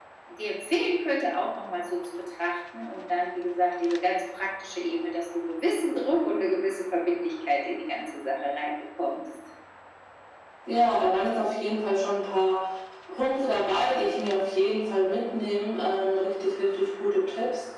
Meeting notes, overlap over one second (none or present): none